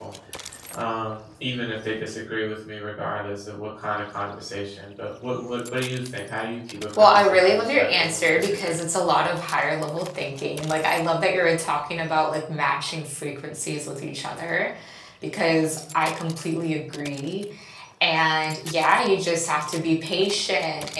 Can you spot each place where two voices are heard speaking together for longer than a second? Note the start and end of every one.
7.0-8.8

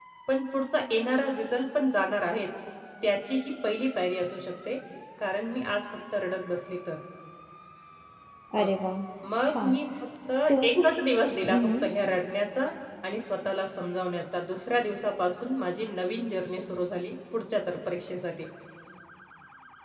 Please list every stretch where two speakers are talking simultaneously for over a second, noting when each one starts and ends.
none

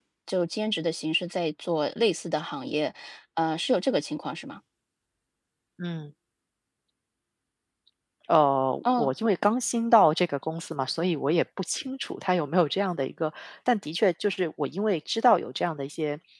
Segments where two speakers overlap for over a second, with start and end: none

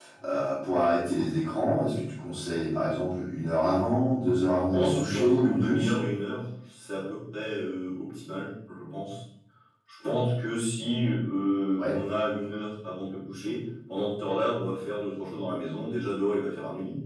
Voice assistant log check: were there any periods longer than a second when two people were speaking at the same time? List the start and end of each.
4.7-5.9

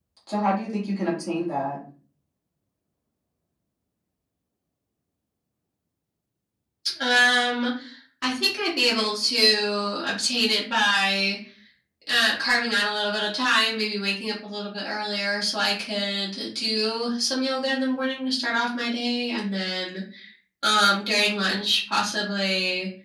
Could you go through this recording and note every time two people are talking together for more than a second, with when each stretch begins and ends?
none

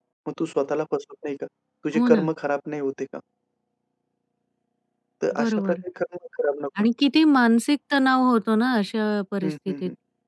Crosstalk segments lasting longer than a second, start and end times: none

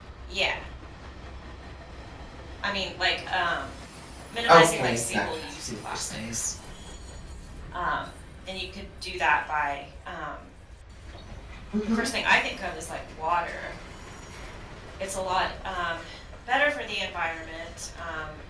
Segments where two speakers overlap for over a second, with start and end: 4.5-6.3

